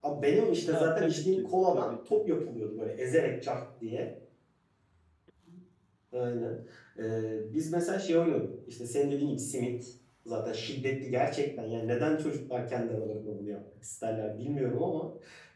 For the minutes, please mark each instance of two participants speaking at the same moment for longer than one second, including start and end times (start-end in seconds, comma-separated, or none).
0.7-2.2